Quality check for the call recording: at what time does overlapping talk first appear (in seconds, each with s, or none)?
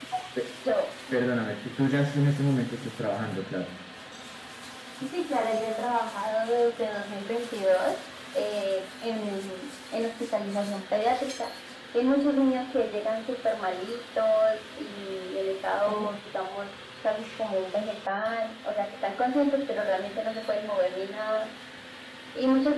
none